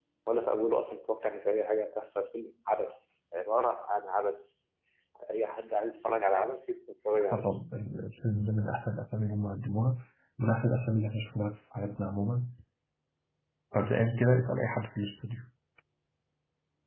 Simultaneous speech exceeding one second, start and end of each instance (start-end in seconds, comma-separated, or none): none